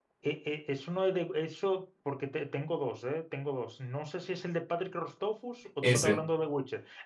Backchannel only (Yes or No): Yes